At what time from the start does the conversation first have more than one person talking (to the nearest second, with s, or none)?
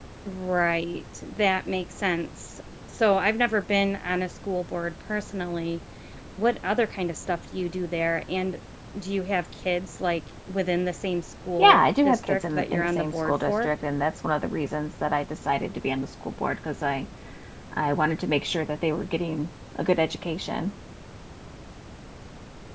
12 s